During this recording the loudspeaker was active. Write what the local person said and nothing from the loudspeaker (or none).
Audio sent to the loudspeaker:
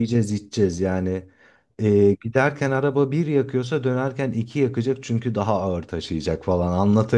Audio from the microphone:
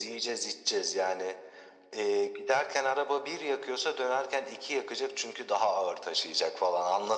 none